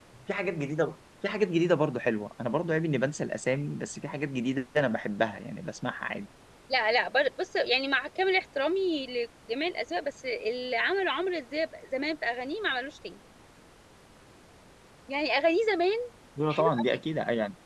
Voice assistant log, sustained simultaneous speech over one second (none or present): none